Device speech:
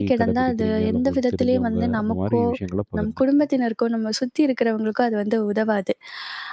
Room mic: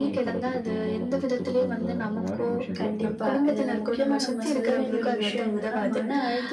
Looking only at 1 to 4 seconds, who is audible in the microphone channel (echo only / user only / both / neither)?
both